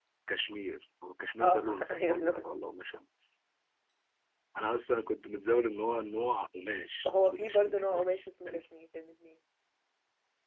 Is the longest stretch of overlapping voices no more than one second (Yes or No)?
No